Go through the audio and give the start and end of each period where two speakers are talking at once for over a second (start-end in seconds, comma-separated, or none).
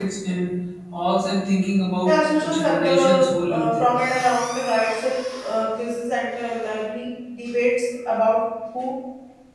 2.0-3.9